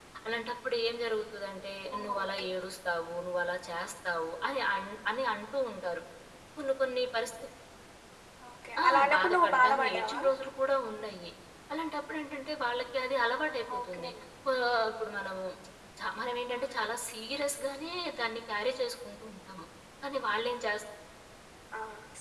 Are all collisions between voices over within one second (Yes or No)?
No